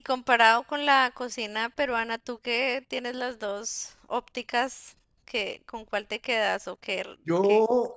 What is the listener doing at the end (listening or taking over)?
taking over